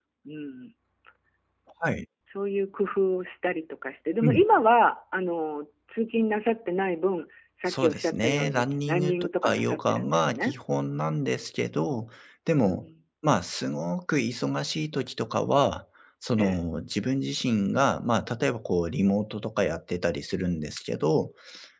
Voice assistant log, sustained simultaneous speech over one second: present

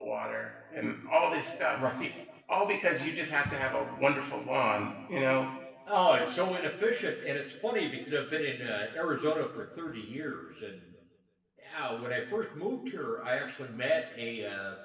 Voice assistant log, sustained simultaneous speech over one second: none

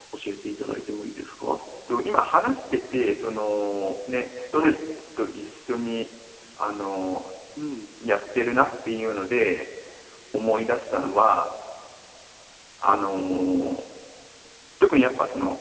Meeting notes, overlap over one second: none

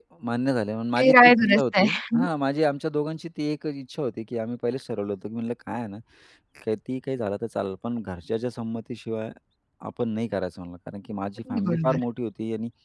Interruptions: present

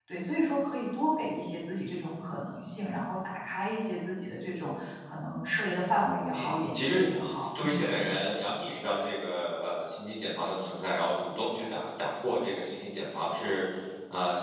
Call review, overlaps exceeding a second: present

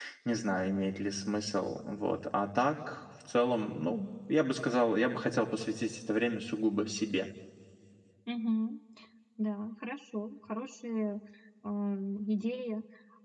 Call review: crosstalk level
none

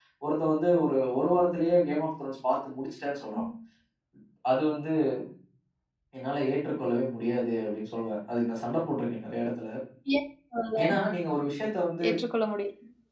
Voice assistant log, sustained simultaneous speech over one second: none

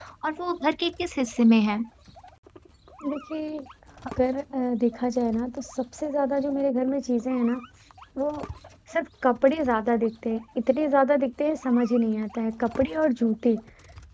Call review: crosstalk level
none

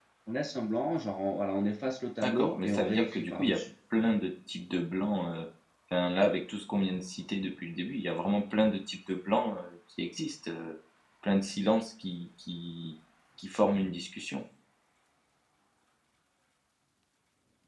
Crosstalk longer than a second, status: present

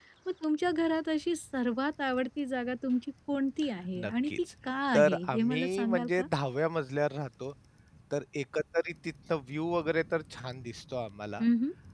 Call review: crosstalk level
present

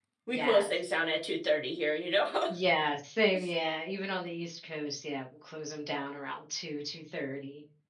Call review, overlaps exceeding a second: none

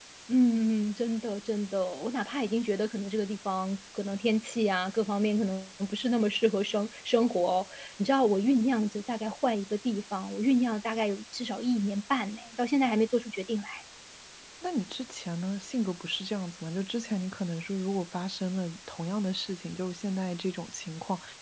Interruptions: none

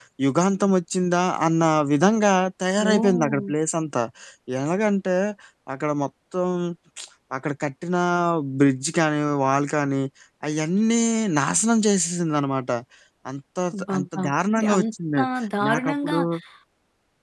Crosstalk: present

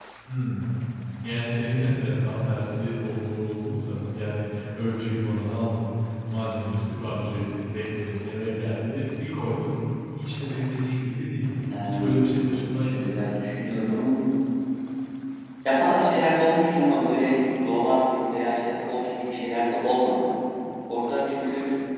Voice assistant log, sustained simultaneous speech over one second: none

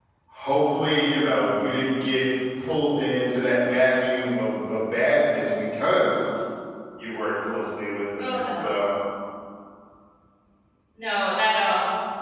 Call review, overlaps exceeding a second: none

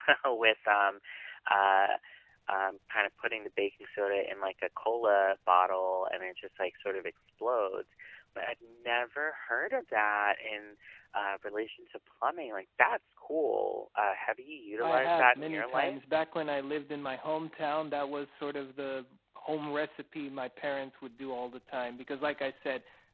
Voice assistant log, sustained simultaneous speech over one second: present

